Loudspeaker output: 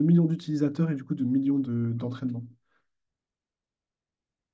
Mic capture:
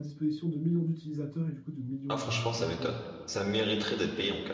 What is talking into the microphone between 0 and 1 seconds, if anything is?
echo only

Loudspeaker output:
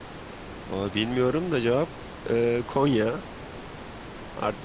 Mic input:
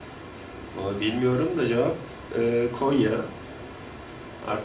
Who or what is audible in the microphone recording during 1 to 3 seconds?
echo only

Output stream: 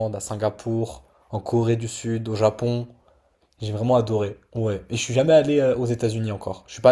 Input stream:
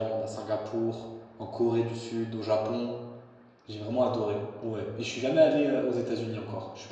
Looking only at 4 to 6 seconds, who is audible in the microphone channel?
echo only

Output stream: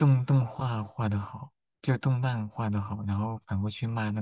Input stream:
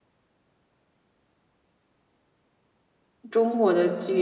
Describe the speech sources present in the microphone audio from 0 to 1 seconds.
neither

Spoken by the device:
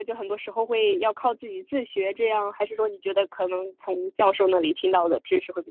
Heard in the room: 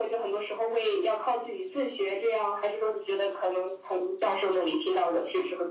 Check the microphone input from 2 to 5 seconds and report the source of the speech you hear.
echo only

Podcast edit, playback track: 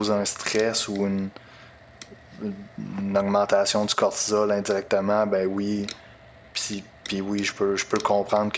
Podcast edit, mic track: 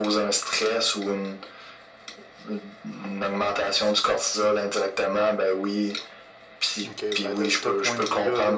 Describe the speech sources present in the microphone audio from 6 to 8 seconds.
both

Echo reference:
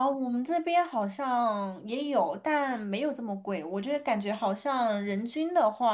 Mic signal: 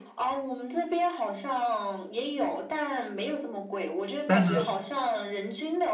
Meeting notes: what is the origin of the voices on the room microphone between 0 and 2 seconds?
echo only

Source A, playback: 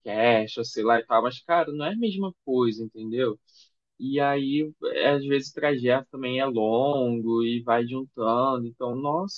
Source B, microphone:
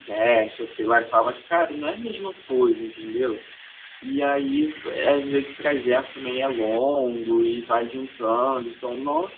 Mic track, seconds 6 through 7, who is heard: echo only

